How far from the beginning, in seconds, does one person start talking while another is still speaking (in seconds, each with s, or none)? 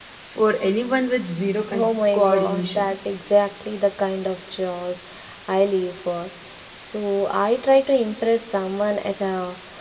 1.7 s